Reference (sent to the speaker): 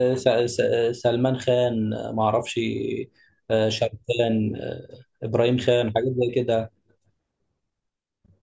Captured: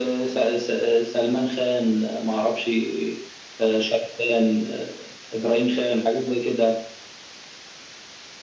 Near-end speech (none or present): none